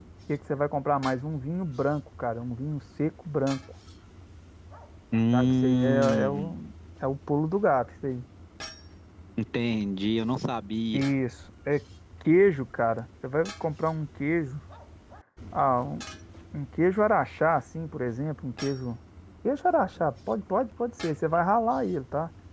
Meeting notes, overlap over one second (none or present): present